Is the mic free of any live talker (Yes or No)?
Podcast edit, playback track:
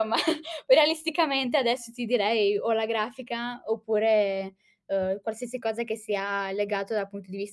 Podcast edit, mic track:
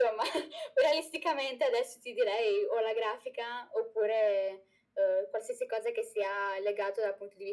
Yes